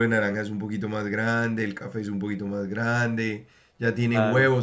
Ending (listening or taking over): listening